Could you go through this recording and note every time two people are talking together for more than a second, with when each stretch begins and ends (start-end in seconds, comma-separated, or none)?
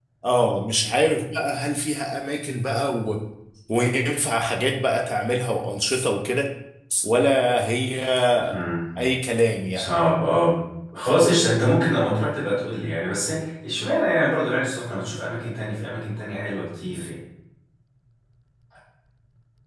none